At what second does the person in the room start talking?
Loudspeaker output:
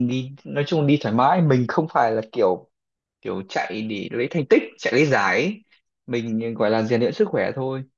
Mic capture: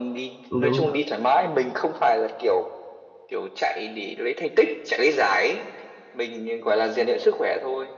0.5 s

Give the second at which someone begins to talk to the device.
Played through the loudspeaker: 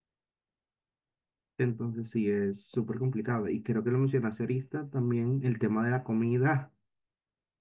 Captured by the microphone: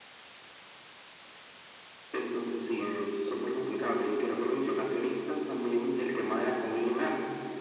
none

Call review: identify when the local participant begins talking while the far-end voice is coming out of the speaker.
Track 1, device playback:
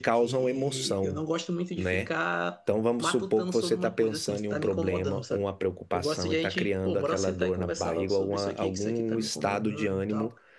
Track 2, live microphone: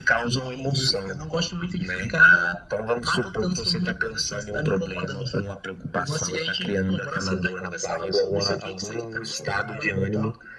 none

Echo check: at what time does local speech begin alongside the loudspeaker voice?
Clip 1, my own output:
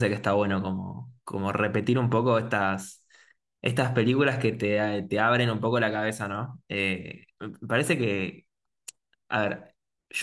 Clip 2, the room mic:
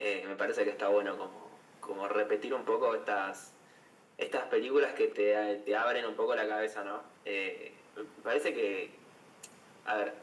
none

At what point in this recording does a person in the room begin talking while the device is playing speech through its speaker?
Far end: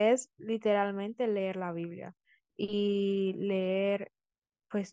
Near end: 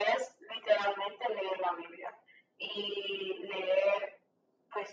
none

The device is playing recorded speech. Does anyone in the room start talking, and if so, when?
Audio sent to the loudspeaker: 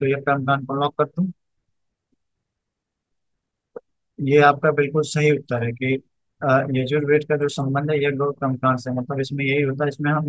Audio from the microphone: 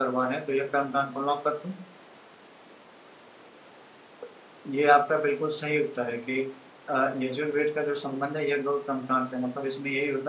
none

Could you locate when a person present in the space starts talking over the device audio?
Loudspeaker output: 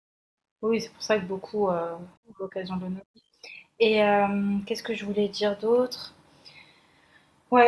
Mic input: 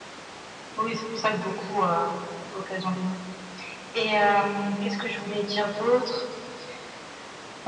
none

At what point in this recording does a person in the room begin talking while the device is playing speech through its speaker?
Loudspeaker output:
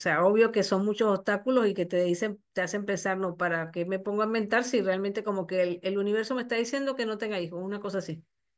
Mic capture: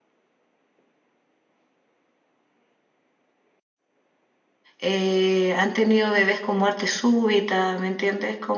4.8 s

